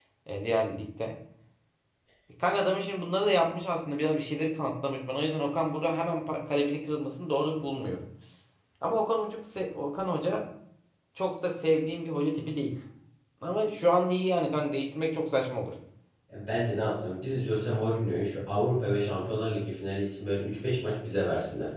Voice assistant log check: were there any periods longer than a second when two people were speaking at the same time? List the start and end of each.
none

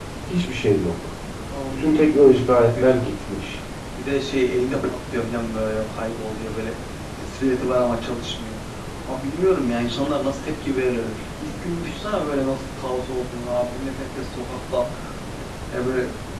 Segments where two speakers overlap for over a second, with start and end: 1.7-3.0

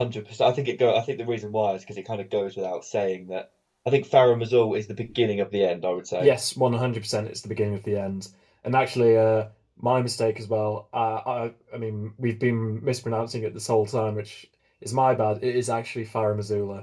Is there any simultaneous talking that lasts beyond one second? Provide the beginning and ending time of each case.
none

